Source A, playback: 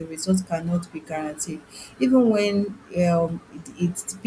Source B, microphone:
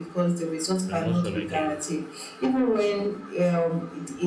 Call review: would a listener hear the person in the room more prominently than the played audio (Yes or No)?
No